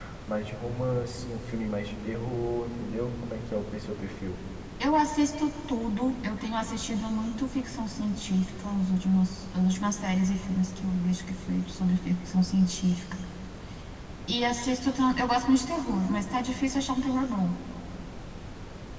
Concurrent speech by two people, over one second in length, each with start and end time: none

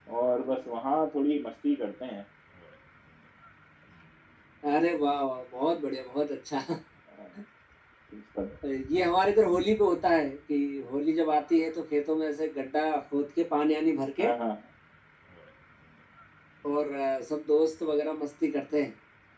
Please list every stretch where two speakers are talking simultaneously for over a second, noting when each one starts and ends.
none

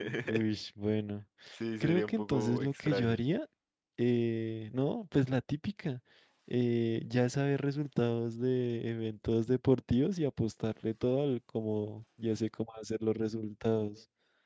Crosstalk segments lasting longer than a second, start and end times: 1.8-3.2

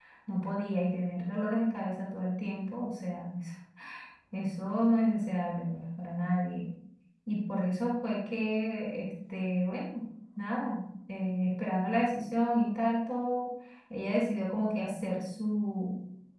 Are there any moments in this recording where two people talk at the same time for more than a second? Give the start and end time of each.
none

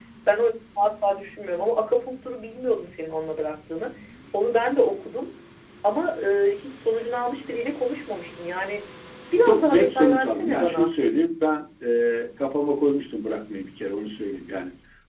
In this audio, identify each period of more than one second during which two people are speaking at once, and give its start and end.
9.5-10.9

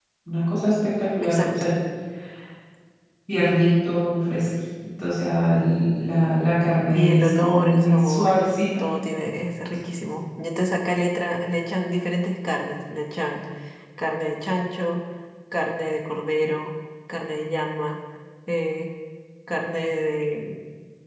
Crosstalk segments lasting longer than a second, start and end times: 6.9-8.4

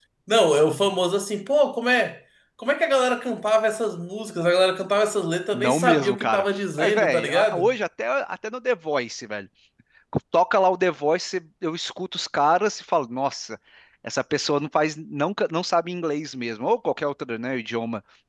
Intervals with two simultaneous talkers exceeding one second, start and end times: 5.5-7.7

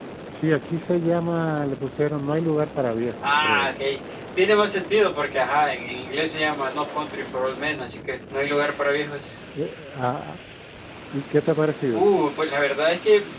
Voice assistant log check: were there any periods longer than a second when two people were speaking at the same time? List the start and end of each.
none

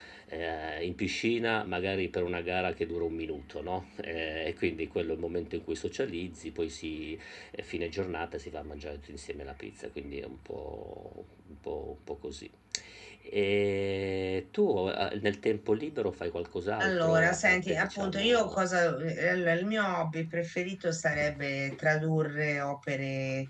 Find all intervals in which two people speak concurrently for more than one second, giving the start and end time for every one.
16.8-18.6

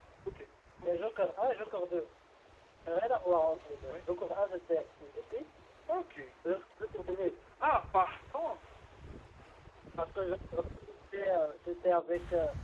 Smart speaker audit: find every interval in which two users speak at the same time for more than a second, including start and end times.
none

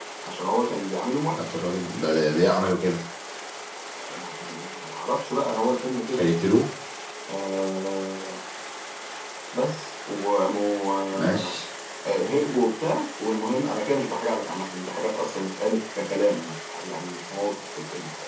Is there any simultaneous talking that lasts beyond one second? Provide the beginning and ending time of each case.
none

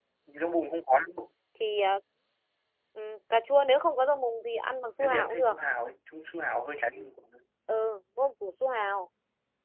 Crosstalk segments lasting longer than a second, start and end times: none

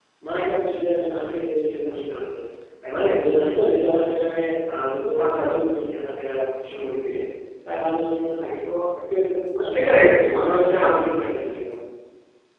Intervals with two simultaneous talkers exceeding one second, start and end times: 9.7-10.9

